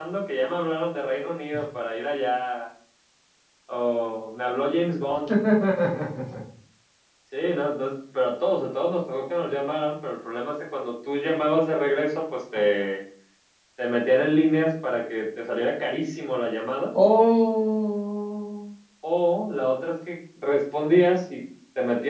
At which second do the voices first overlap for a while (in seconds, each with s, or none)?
none